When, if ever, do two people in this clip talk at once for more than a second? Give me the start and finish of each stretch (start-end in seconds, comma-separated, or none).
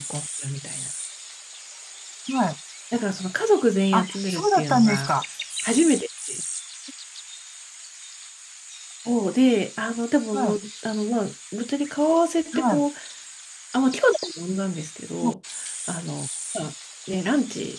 3.9-5.1